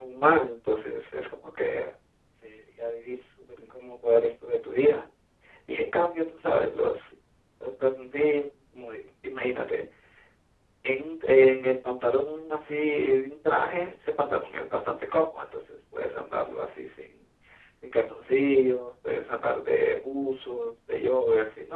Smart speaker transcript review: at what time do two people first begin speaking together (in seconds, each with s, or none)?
none